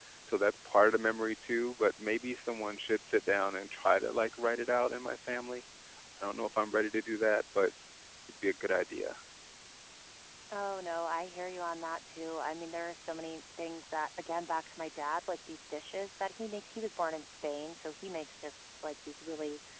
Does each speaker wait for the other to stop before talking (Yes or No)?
Yes